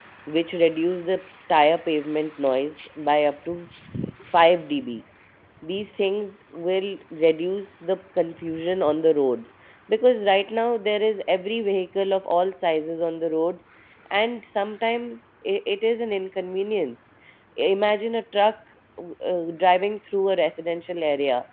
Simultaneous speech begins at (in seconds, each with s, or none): none